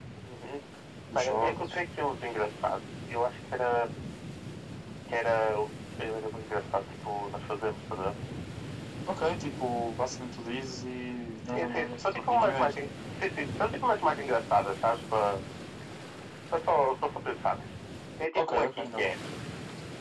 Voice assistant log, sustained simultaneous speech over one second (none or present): present